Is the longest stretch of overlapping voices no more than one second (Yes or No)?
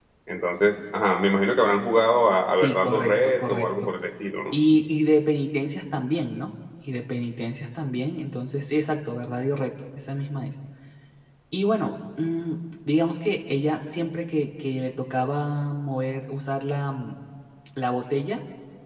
No